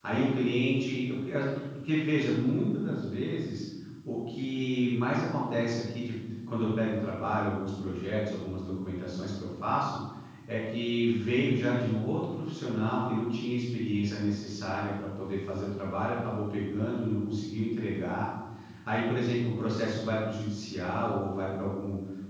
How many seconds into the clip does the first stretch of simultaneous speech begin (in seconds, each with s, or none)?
none